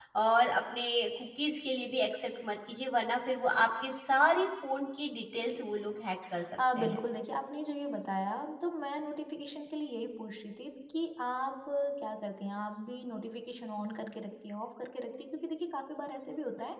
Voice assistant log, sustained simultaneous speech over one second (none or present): none